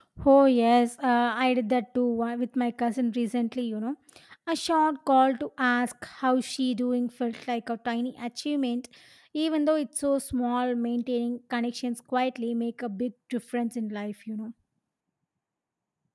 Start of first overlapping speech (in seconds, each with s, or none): none